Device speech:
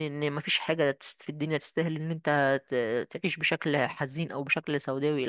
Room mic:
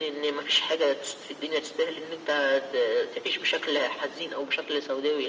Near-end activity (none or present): none